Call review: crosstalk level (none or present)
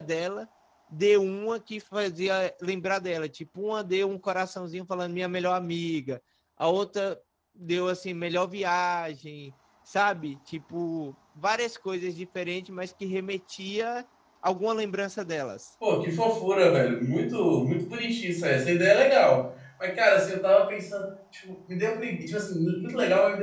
none